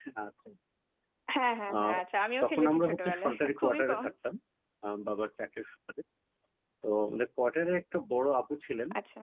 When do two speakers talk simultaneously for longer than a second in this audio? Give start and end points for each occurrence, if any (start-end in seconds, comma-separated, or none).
2.4-4.0